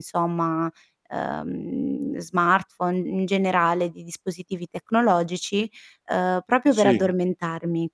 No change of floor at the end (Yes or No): Yes